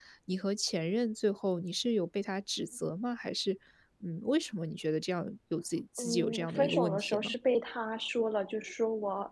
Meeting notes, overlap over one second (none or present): present